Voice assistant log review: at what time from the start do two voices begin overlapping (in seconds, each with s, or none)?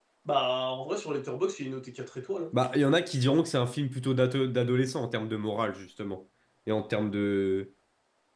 none